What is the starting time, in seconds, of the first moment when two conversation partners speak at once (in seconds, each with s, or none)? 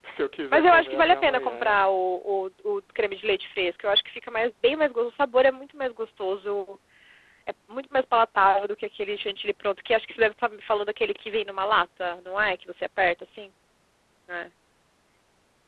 0.5 s